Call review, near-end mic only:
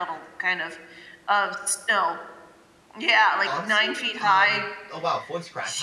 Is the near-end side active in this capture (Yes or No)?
Yes